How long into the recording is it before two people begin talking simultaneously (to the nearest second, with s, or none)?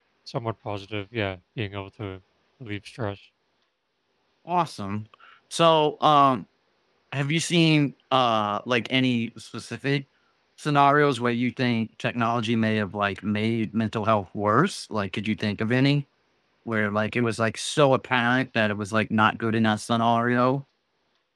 none